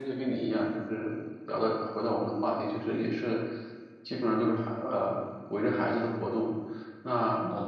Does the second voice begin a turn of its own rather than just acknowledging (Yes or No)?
No